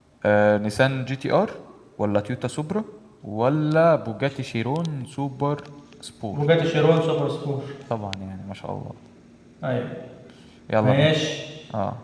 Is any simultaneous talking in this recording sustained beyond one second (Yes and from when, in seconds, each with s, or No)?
No